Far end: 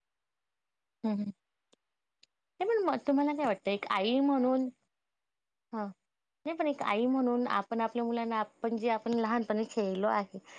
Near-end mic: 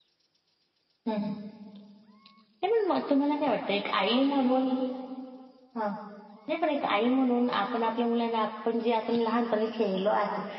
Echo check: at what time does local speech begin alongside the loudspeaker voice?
none

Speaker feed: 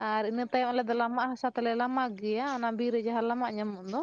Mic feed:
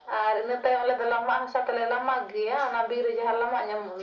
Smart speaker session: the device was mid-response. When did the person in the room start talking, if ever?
none

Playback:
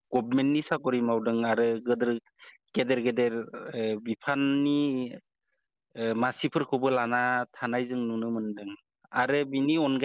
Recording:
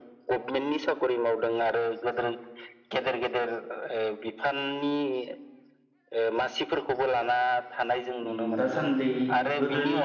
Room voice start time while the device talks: 8.3 s

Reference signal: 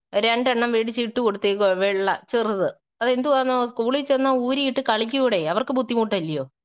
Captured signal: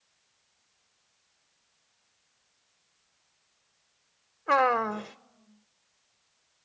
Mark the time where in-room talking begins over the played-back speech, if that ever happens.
4.5 s

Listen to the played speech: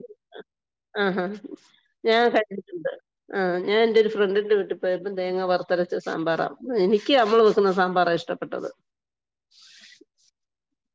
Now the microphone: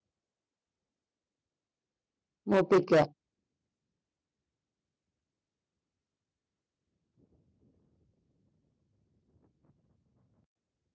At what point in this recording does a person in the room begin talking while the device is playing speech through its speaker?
2.5 s

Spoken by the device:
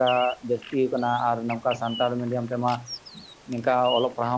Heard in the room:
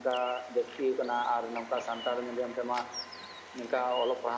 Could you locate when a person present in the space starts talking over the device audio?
none

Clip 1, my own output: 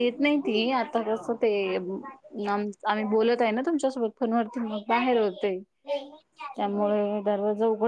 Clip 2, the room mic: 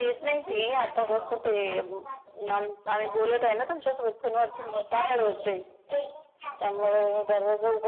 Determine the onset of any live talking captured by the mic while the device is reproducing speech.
none

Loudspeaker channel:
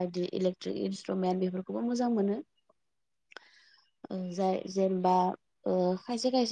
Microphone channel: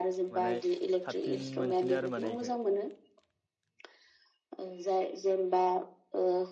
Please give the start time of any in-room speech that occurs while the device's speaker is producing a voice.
0.3 s

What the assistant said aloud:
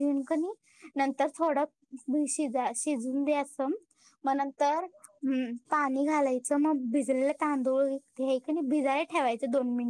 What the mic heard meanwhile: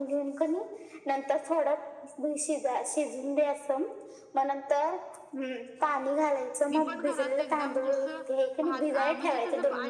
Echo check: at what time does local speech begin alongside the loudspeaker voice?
6.7 s

